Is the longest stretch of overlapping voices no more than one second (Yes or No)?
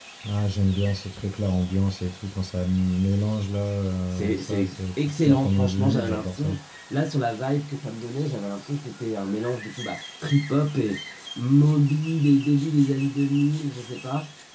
No